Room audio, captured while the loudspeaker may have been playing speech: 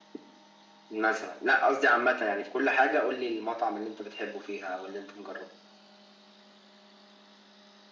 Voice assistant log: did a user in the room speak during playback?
No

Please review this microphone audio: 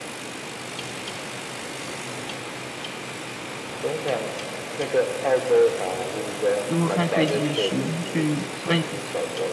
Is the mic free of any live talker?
No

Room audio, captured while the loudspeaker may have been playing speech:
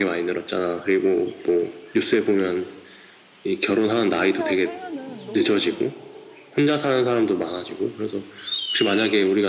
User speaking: Yes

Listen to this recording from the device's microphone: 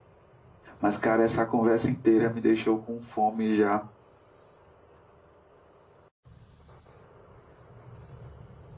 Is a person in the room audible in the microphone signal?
Yes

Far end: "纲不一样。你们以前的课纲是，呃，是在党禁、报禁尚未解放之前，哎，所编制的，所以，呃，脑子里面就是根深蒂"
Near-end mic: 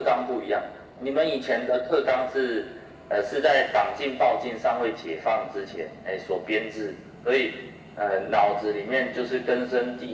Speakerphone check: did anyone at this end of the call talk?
No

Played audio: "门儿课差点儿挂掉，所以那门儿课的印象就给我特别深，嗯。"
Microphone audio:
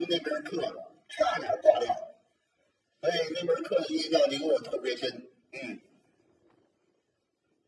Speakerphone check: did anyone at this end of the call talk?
No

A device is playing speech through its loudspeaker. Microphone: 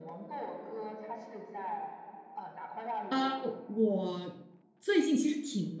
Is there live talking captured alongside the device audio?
Yes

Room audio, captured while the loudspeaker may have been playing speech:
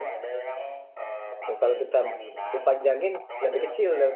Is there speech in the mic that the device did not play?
Yes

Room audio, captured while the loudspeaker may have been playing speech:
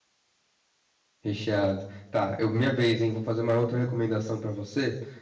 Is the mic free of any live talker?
No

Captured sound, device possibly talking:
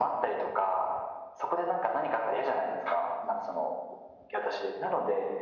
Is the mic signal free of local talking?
Yes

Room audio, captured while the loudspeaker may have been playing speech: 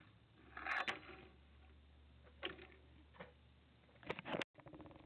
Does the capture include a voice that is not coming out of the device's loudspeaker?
No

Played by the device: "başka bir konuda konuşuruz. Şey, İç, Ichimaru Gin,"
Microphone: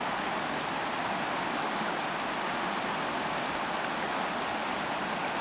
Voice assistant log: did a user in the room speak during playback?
No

